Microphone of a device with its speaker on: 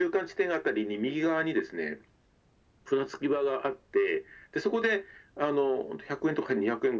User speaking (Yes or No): No